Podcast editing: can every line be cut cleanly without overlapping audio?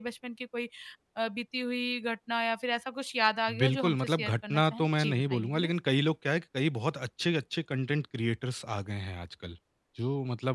No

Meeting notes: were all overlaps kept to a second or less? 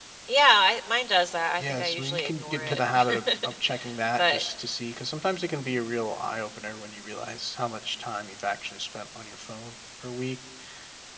No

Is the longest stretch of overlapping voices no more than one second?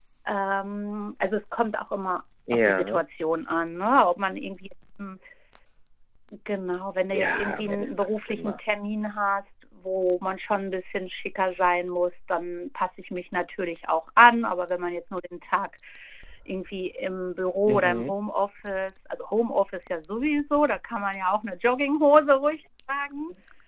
No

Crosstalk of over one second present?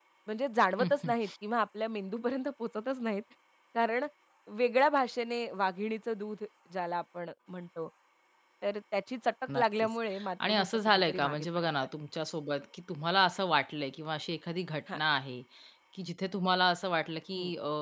Yes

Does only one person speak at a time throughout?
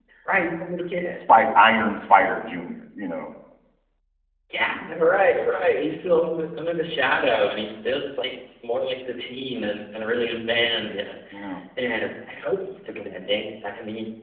Yes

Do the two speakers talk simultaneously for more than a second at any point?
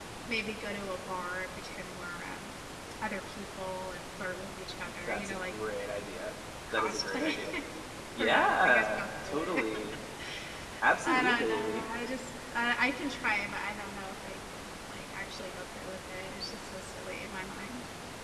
Yes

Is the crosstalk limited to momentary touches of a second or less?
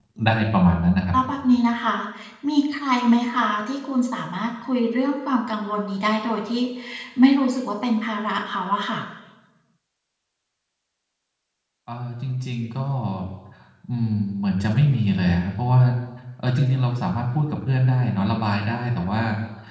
Yes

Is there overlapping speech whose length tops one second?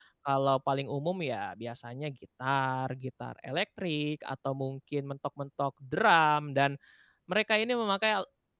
No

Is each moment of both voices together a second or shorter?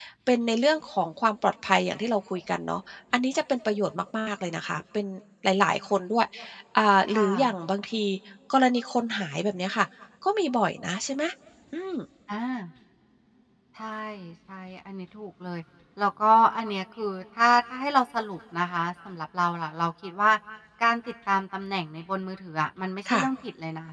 Yes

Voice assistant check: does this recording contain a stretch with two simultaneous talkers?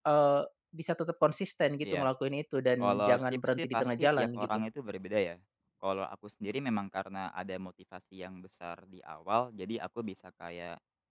Yes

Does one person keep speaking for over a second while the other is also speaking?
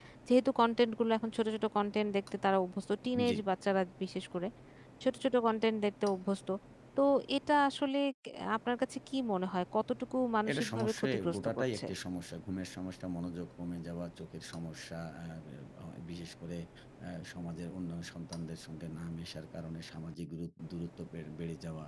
Yes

